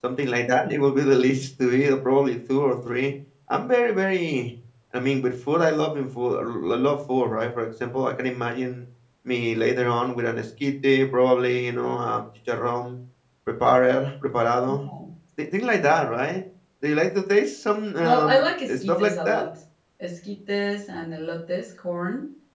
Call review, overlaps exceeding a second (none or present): present